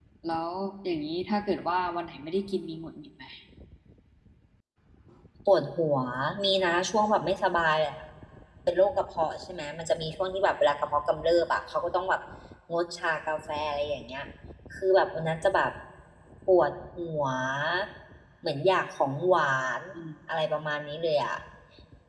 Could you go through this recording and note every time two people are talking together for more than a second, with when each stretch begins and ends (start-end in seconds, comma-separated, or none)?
none